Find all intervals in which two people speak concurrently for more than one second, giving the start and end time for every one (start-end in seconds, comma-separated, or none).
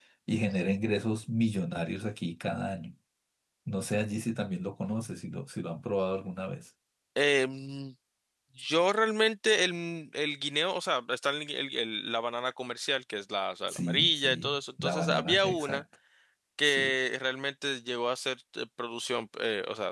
13.7-15.8